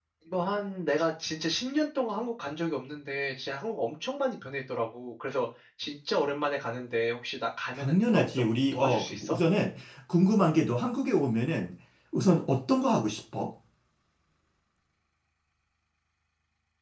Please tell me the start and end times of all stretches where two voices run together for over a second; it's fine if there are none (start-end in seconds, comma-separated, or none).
7.7-9.4